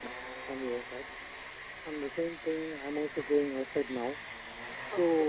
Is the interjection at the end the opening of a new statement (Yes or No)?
No